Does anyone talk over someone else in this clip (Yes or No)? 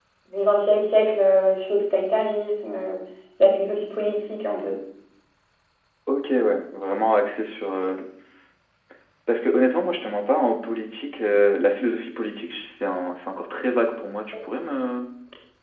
No